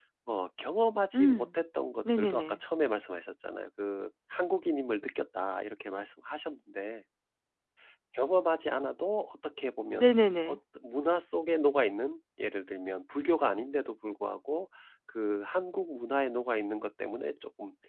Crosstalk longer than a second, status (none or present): none